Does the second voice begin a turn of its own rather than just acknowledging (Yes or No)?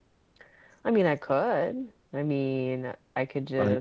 No